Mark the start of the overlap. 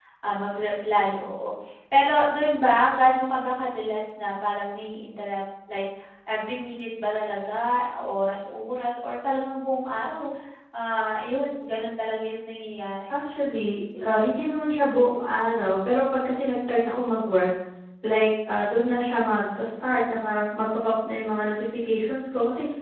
none

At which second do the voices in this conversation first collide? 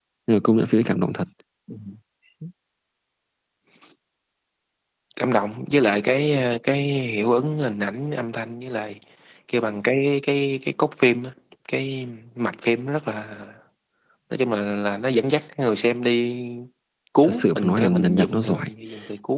17 s

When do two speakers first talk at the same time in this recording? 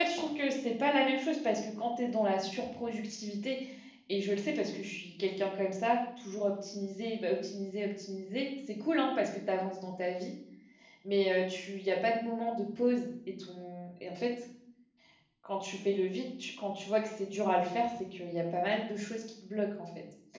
none

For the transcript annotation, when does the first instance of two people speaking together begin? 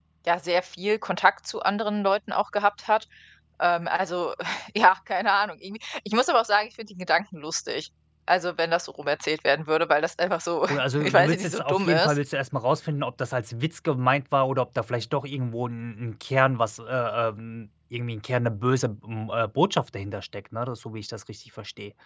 11 s

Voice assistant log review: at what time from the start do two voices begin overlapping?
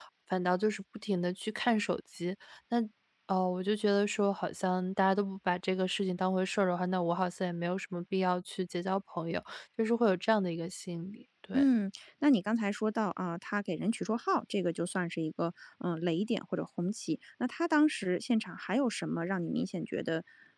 none

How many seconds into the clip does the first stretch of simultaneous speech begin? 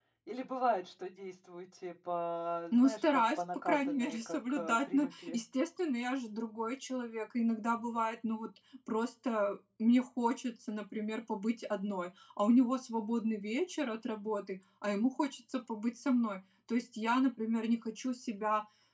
3 s

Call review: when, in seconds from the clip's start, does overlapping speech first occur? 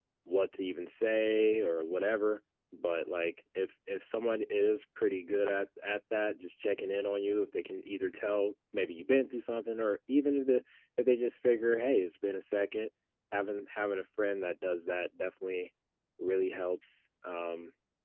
none

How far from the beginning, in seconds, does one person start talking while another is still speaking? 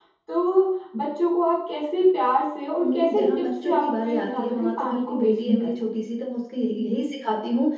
3 s

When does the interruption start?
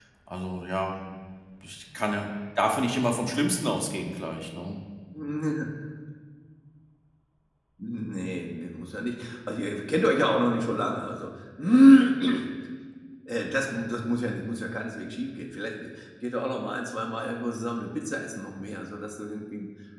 none

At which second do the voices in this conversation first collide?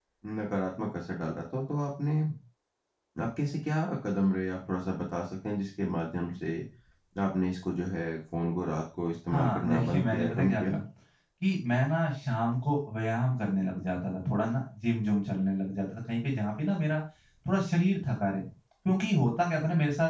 9 s

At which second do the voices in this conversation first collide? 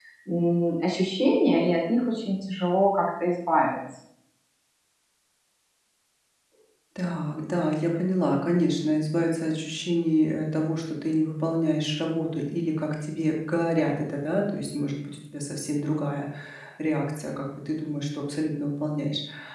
none

